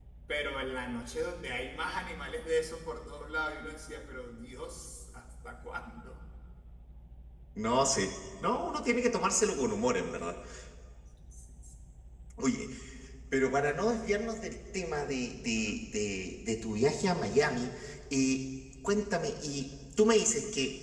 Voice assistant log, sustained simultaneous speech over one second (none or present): none